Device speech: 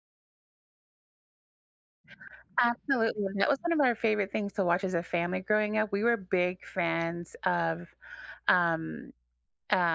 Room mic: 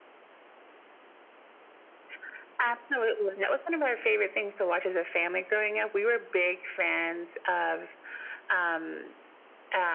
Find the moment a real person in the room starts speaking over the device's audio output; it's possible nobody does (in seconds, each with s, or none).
none